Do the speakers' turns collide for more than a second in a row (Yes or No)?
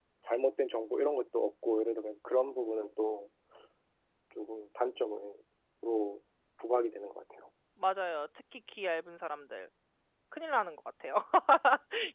No